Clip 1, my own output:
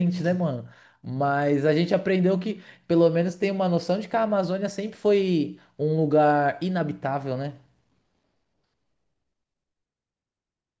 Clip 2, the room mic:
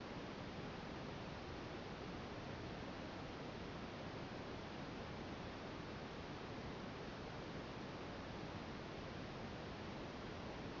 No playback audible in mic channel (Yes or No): Yes